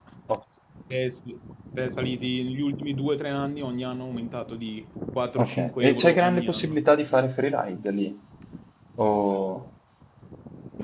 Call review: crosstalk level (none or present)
present